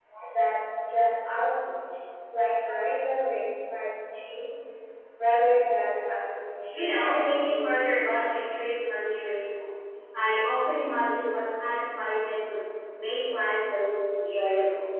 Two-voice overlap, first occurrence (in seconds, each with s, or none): 6.7 s